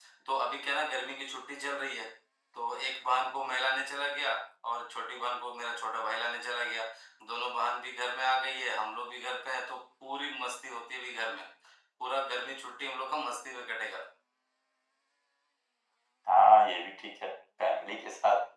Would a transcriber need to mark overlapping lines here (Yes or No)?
No